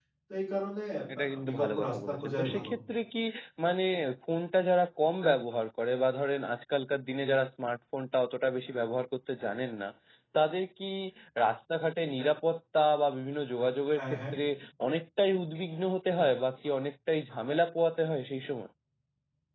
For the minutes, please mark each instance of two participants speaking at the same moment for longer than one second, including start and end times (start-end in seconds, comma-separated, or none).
1.1-2.7